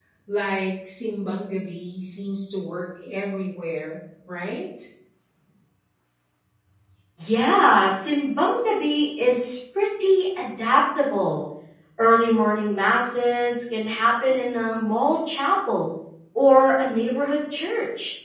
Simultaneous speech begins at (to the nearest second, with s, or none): none